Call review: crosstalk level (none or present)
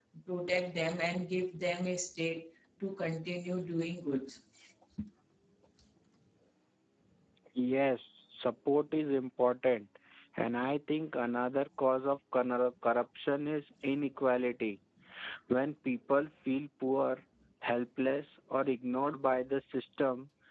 none